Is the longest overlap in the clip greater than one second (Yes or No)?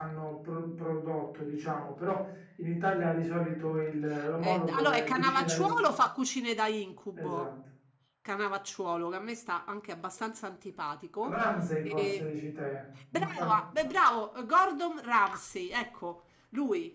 Yes